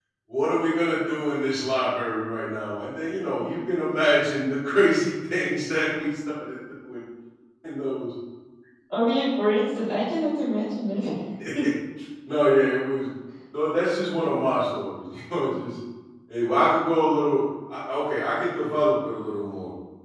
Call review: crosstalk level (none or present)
none